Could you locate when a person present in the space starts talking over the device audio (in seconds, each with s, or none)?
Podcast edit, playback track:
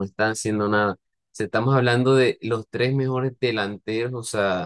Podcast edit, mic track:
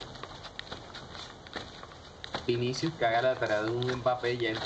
2.5 s